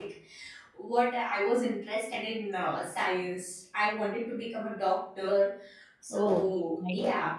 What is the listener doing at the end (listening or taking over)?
listening